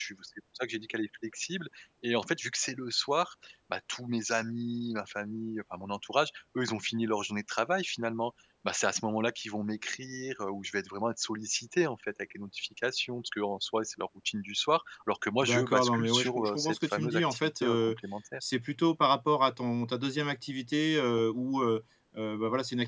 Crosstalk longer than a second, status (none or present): present